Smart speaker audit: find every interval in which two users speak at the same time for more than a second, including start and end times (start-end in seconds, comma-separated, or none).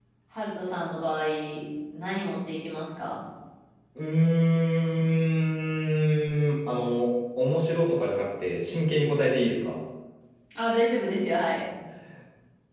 none